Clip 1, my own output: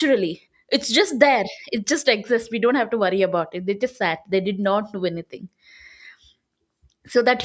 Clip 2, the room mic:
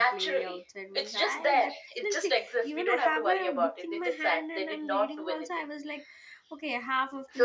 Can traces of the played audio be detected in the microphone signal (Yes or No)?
Yes